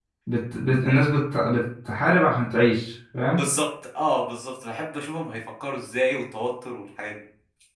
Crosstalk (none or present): none